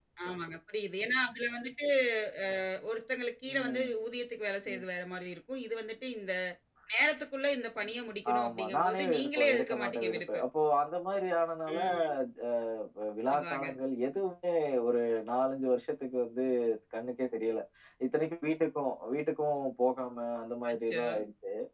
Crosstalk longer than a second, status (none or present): present